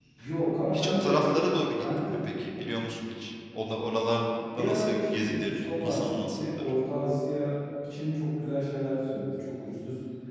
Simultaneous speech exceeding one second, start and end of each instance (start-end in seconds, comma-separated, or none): 4.6-6.7